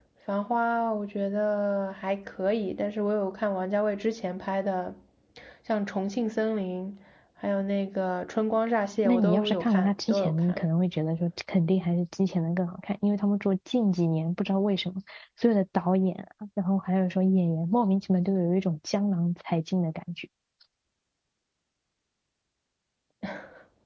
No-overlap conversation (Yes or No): No